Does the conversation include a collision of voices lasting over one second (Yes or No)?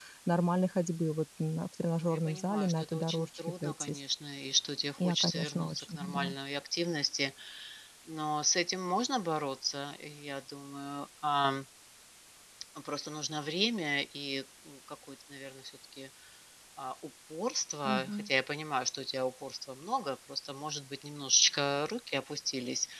Yes